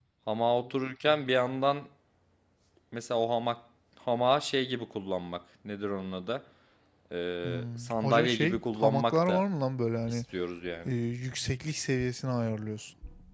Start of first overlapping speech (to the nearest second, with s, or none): 7 s